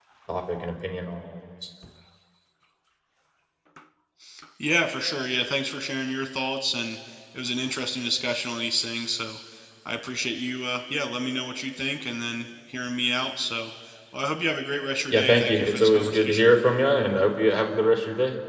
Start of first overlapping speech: 15 s

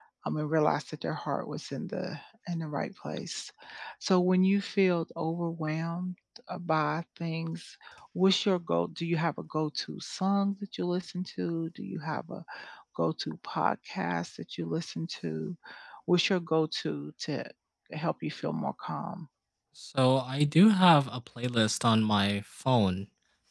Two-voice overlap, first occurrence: none

